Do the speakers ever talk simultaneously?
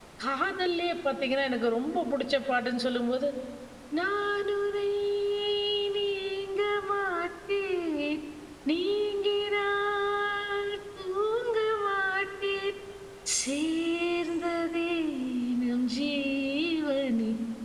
No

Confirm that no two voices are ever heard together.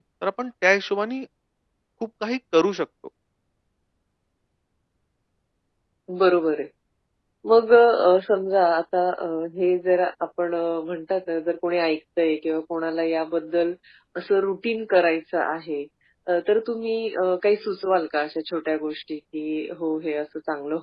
Yes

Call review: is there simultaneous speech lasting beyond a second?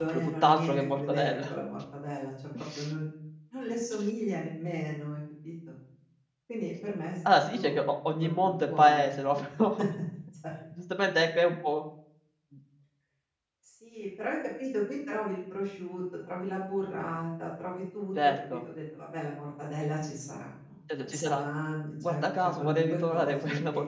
Yes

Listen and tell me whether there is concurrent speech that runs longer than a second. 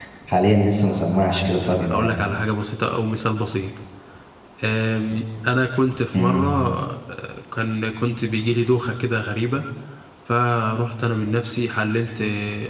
No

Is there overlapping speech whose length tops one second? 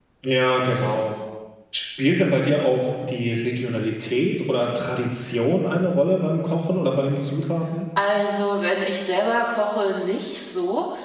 No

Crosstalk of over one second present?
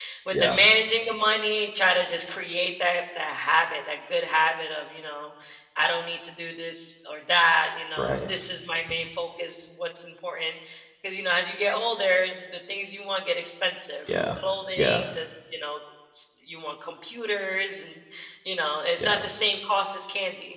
No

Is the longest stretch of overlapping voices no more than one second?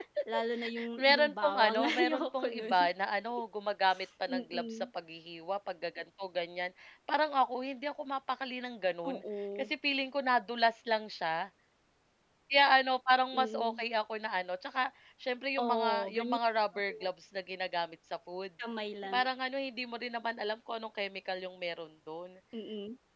No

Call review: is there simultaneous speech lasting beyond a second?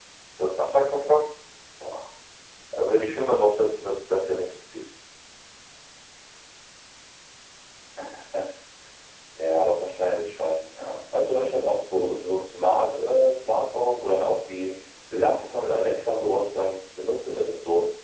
No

